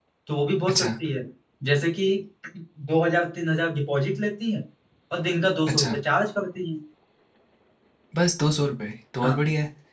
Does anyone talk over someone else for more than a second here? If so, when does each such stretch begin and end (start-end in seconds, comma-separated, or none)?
none